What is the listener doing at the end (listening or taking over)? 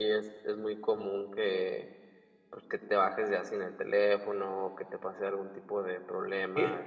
taking over